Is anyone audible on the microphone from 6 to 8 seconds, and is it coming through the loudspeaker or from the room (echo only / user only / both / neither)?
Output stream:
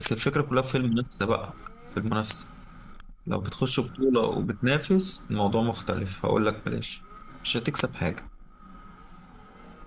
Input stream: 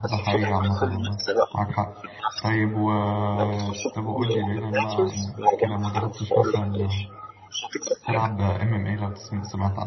both